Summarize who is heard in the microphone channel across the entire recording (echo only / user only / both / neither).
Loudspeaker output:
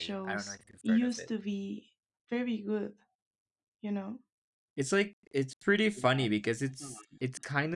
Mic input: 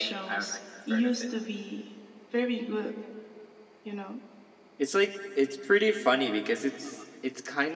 echo only